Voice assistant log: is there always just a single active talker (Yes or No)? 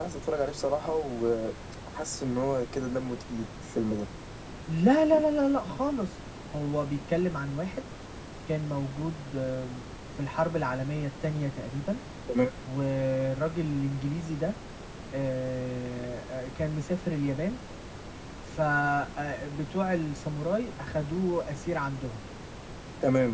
Yes